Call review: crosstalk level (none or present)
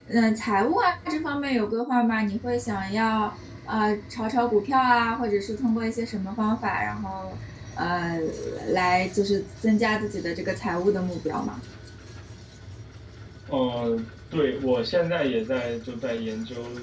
none